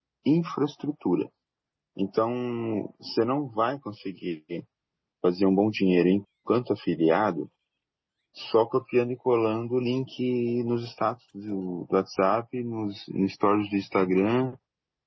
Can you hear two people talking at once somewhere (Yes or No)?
No